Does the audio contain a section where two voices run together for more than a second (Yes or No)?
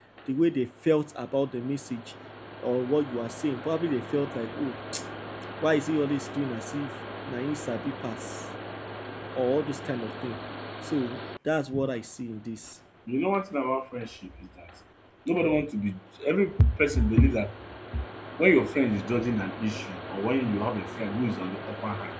No